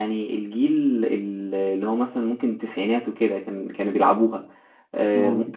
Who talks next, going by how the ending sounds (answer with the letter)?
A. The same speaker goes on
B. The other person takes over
A